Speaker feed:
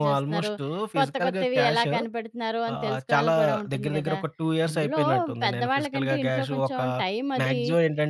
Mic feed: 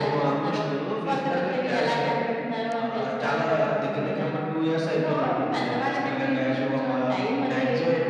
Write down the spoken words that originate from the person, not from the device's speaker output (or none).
none